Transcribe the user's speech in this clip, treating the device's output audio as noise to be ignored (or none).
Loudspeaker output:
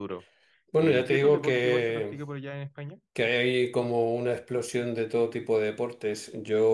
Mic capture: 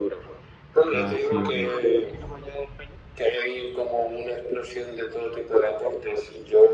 Ah, sí, ok.